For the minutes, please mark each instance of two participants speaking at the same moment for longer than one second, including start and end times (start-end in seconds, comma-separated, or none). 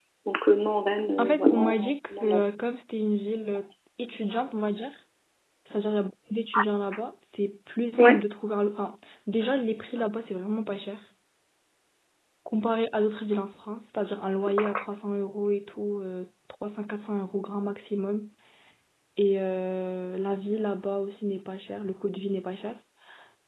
1.2-2.4